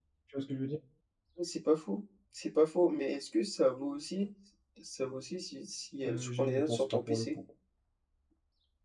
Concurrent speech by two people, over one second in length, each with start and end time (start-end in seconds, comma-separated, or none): 6.0-7.3